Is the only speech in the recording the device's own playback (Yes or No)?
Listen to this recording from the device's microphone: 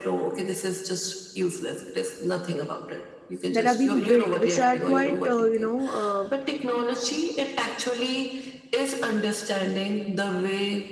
No